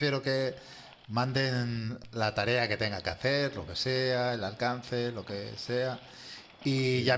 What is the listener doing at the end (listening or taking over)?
listening